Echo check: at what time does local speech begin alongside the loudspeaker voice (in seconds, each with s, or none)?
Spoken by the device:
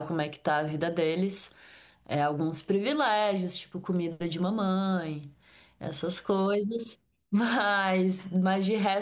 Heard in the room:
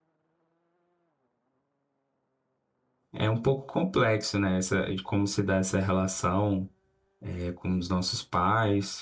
3.1 s